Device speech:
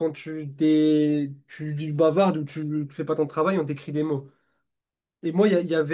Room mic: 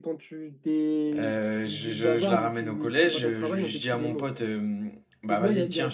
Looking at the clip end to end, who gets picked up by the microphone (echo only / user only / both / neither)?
both